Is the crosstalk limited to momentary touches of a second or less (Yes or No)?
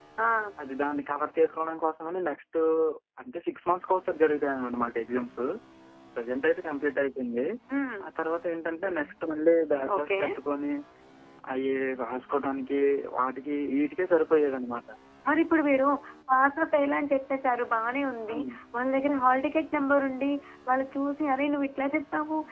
Yes